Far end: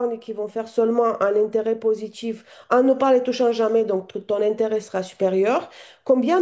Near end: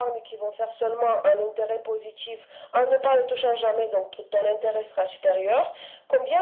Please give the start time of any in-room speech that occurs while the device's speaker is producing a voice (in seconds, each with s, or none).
none